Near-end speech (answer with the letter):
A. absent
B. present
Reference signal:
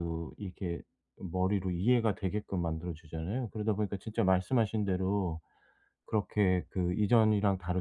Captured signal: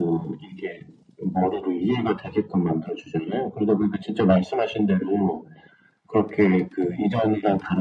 A